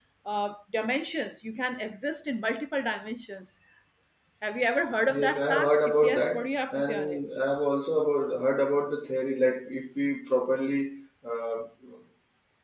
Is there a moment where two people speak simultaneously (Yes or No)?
Yes